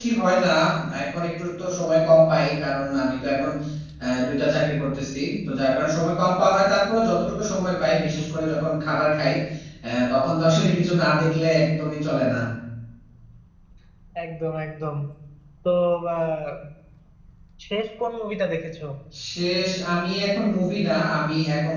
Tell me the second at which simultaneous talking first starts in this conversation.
none

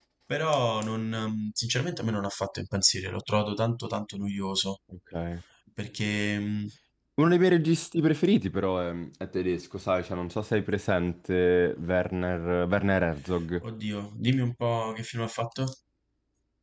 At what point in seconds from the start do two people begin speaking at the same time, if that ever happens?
none

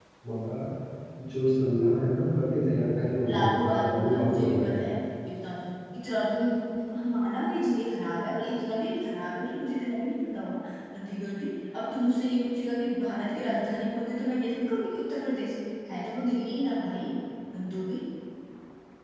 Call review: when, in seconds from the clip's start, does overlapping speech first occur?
3.2 s

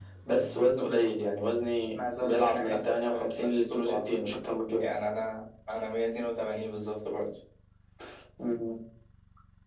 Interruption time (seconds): 2.2 s

